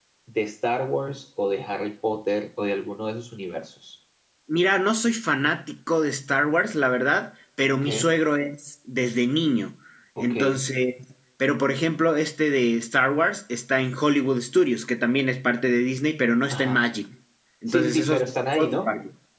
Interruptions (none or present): present